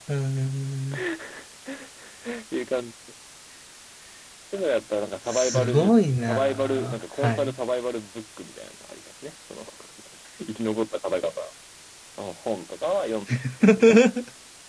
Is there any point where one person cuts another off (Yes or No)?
Yes